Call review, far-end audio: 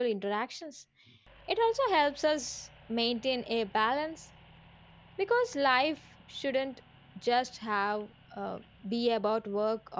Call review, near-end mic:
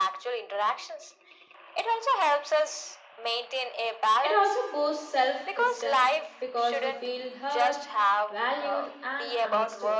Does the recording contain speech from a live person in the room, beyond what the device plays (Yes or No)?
Yes